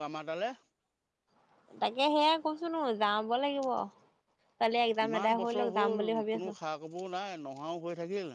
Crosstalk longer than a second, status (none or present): present